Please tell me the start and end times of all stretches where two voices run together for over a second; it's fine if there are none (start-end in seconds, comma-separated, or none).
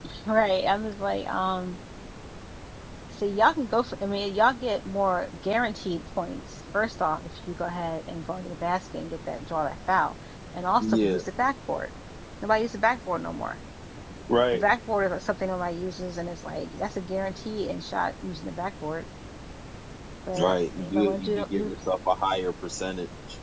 20.4-21.8